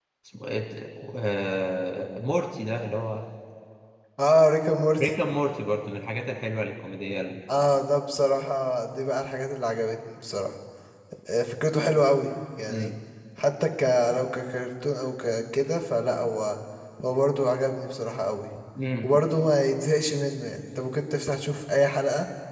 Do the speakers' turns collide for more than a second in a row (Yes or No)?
No